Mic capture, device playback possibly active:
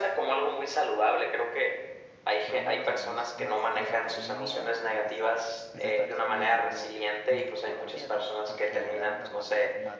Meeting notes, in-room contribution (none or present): present